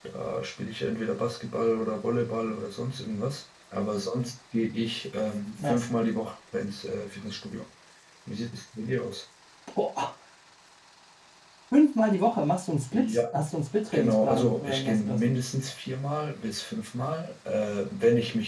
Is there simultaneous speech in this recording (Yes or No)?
Yes